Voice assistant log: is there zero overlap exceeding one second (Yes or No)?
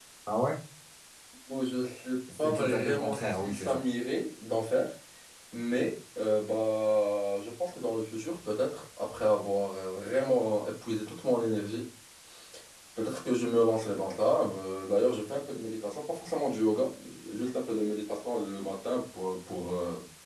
No